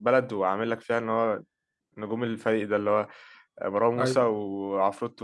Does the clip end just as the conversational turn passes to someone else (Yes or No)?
No